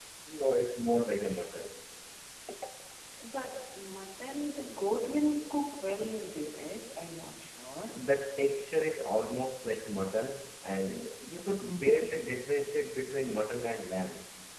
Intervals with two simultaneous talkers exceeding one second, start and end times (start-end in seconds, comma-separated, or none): none